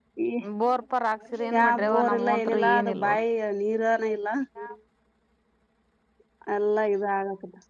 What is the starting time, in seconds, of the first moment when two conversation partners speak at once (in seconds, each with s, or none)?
1.5 s